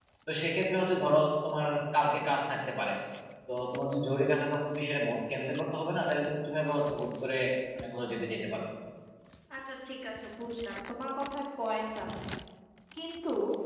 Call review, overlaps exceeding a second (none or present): none